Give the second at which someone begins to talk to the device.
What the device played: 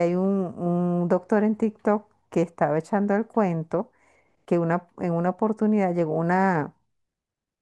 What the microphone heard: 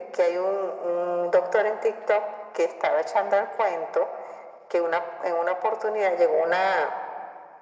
none

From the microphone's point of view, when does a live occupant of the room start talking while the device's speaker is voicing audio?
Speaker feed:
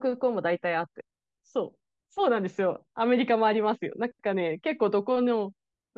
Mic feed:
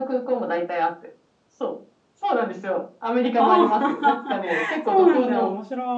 3 s

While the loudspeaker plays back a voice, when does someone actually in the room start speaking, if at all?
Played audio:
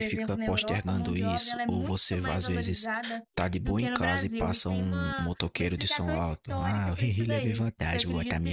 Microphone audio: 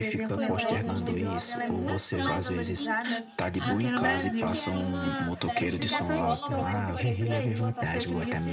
0 s

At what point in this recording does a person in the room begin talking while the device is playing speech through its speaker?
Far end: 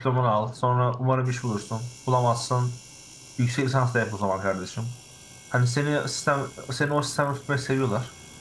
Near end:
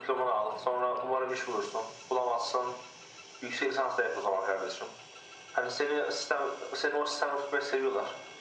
none

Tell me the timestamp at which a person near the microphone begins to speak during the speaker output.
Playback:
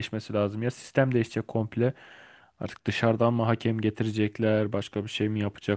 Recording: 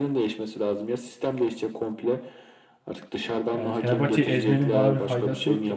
4 s

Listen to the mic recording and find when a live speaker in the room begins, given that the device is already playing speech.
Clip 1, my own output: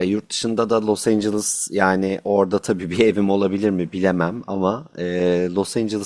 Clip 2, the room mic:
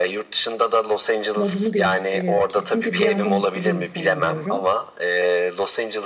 1 s

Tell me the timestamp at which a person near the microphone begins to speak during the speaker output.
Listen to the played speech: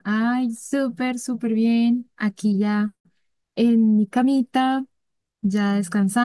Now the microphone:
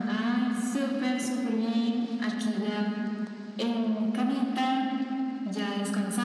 none

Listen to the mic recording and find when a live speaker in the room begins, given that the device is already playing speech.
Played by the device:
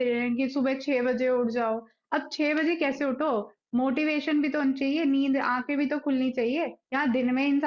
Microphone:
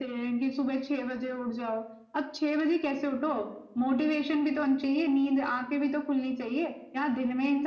none

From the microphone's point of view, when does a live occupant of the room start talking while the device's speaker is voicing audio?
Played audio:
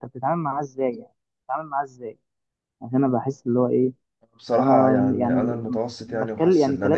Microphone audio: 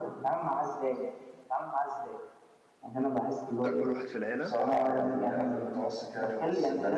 3 s

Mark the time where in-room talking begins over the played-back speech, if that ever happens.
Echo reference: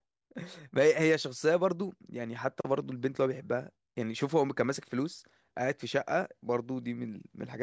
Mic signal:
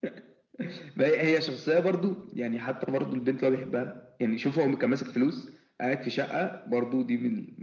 none

